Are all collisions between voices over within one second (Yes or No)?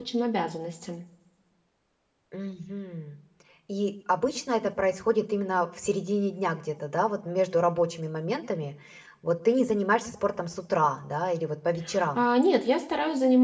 Yes